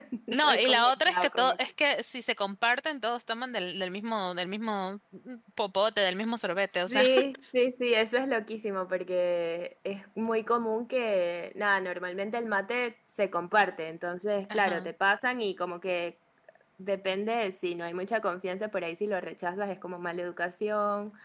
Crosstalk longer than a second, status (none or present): present